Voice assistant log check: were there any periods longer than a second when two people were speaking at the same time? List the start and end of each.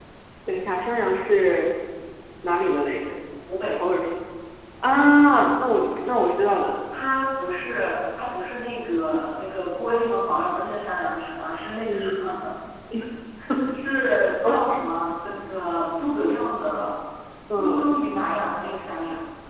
none

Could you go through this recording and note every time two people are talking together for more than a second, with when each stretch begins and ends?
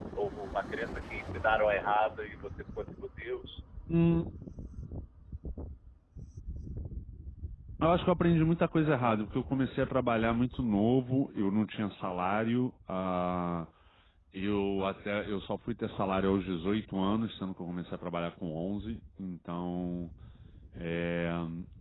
none

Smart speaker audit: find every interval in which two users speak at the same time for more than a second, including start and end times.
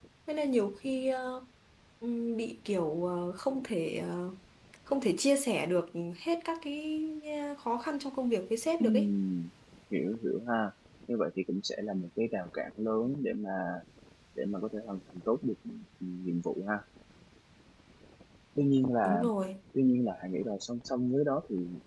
none

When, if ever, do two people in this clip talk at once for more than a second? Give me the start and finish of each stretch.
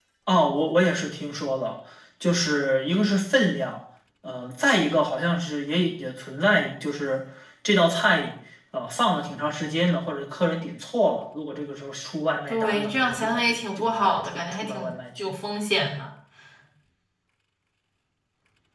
12.5-15.3

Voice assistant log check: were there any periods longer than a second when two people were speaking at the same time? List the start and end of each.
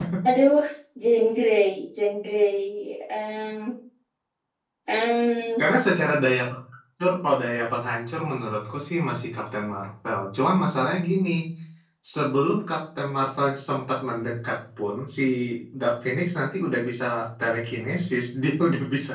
none

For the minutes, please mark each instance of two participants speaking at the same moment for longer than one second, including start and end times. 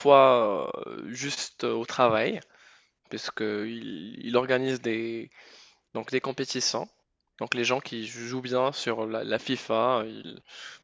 none

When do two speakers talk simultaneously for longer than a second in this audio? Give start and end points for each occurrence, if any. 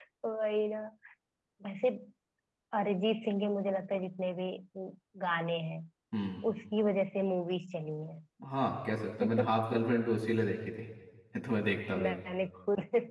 none

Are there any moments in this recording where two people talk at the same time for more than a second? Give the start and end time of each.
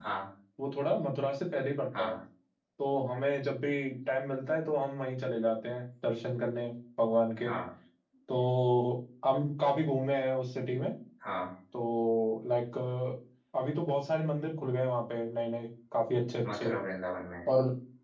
none

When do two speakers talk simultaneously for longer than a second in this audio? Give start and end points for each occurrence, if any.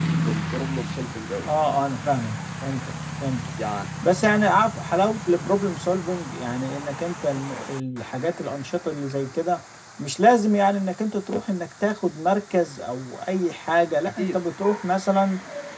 none

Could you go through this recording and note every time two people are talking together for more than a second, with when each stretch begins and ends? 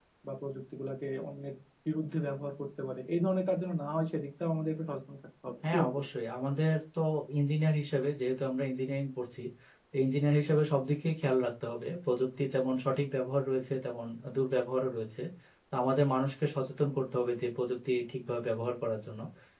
none

